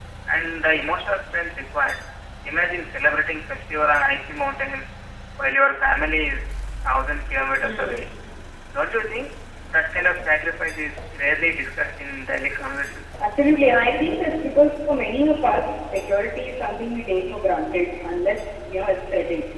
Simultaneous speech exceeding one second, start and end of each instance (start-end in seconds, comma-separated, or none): none